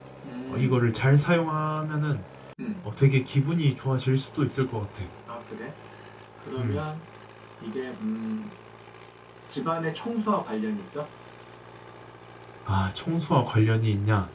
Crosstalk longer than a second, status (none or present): none